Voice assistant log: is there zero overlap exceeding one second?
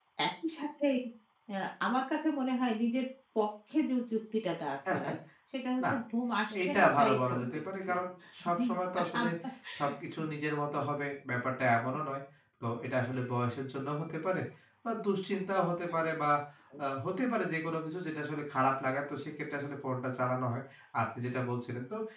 No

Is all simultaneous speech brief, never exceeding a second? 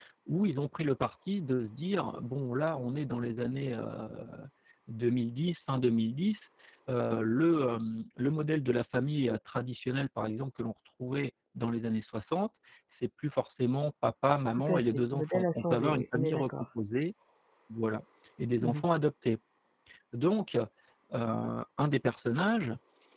No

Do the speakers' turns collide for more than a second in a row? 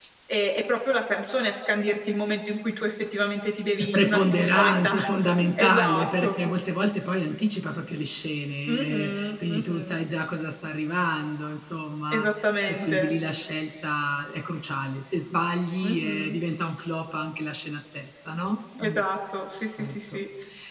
Yes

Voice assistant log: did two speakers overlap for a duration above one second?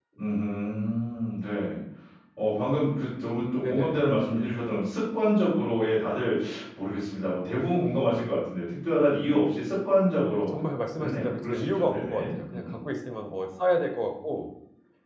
Yes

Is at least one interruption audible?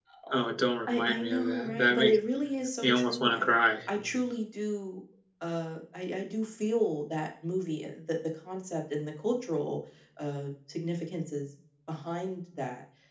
Yes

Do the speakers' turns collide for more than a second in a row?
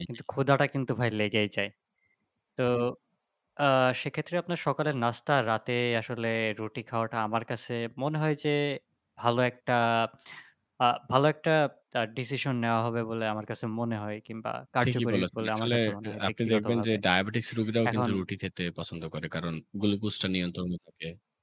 Yes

